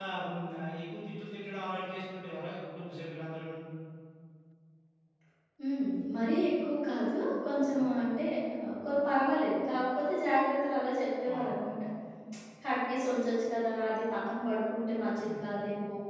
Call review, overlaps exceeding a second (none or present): none